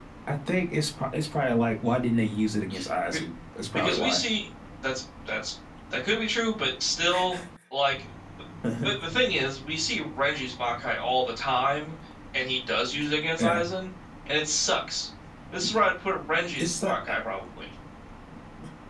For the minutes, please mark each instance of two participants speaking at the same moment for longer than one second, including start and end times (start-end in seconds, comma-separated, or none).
none